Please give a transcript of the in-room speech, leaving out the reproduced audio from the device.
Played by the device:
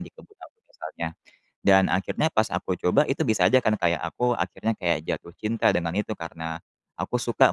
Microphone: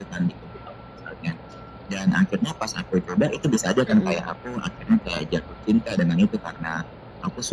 Mhm.

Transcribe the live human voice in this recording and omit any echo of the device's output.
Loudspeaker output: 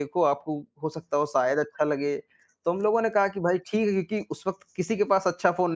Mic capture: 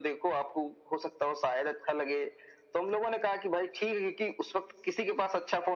none

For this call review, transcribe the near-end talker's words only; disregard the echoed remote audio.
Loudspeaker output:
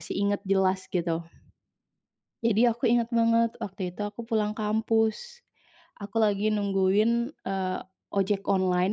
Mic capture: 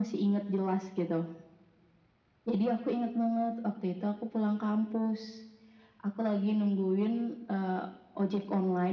none

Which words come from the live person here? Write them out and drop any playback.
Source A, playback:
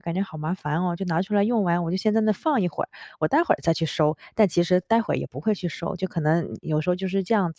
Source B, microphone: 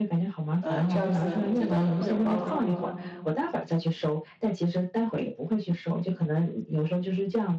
呃，这样子您觉得会有帮助吗？

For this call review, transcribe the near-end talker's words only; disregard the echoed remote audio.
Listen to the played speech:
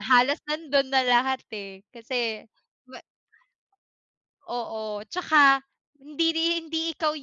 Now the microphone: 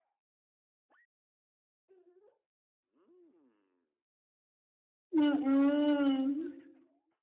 Mm.

